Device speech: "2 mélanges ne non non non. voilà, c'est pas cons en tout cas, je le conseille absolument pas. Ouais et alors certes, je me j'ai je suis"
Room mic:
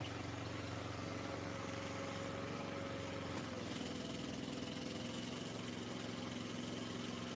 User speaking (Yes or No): No